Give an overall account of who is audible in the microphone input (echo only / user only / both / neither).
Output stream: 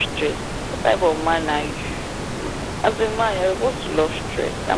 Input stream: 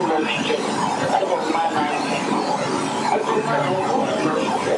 both